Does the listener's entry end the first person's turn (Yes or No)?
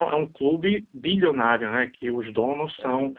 No